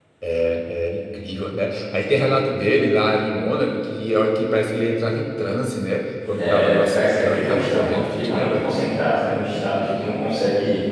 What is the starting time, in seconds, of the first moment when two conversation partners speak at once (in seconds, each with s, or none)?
6.4 s